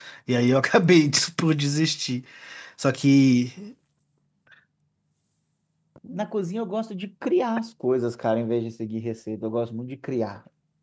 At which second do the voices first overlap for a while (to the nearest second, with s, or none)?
none